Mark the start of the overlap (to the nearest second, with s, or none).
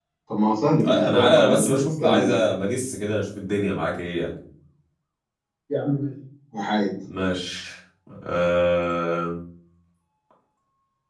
1 s